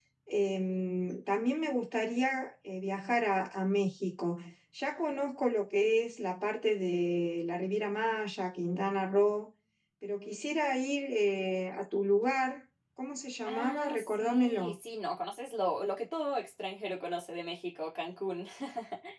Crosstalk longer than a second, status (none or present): present